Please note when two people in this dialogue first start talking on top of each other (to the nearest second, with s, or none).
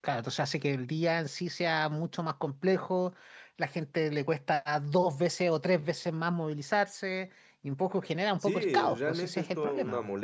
8 s